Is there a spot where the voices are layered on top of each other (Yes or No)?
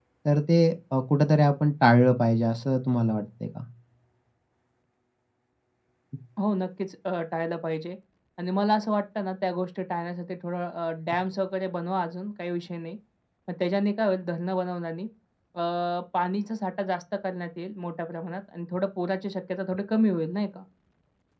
No